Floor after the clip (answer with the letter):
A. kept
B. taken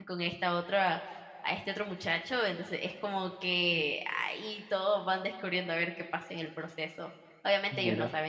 A